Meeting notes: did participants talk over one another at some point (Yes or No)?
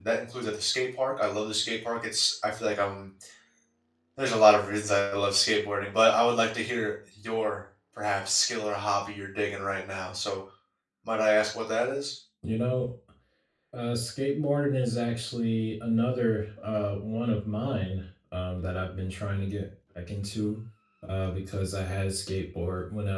No